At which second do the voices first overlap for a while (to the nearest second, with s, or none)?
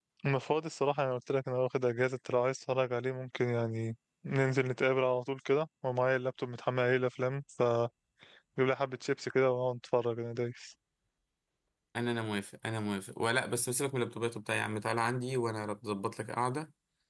none